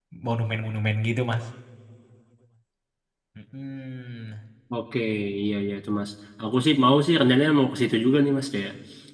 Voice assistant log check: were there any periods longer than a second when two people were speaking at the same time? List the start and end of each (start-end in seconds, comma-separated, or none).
none